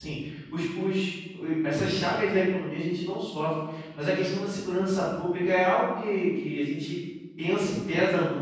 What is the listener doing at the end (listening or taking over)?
listening